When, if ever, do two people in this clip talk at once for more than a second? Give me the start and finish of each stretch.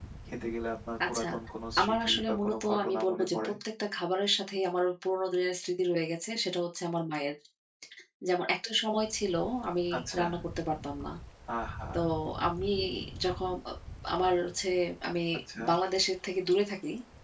1.8-3.5

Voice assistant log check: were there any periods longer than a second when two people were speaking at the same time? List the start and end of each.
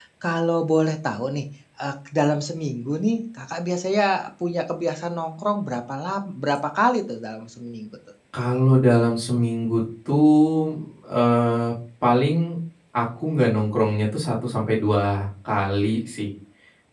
none

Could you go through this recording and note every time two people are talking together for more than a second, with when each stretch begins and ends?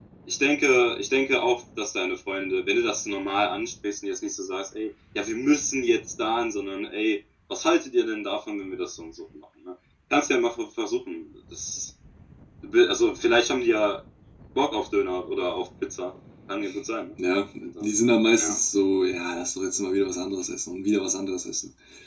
none

